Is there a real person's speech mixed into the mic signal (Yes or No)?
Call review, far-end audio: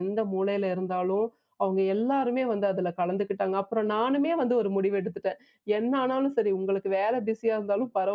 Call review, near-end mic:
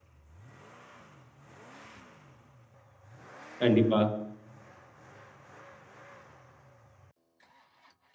Yes